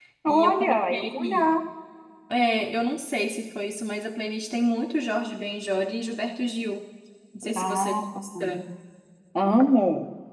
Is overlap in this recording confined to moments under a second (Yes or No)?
No